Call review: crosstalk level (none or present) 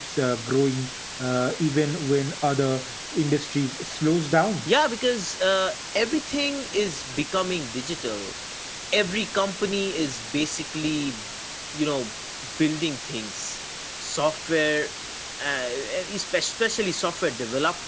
none